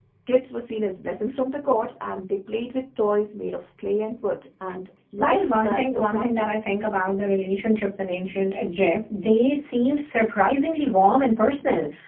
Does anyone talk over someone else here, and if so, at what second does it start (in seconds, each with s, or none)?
5.2 s